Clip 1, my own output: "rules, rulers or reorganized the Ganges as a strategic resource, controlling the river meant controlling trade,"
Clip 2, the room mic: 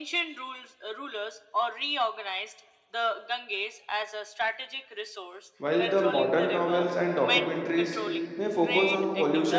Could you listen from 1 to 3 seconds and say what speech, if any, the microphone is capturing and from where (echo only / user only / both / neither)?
echo only